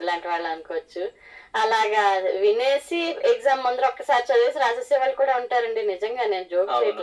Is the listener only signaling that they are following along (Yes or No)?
No